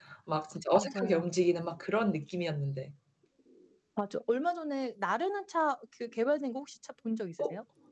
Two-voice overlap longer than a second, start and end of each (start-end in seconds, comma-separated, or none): none